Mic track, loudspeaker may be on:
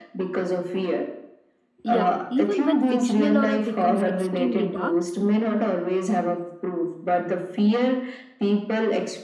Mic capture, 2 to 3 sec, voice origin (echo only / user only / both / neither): both